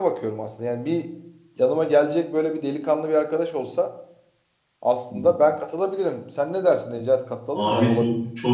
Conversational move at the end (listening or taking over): taking over